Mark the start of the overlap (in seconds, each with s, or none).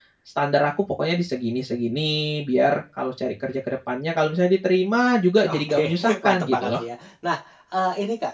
5.4 s